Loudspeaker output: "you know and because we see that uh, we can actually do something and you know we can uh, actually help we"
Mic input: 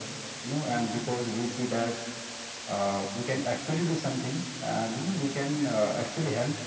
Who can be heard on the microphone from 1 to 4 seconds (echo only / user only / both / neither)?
echo only